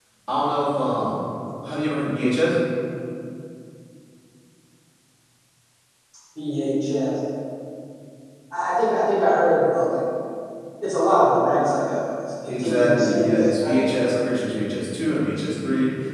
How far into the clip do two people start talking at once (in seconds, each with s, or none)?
12.5 s